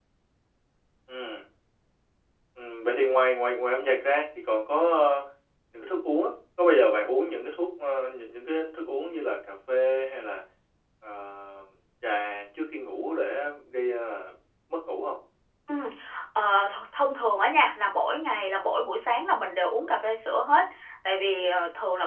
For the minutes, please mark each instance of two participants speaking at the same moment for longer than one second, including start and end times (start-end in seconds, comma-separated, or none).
none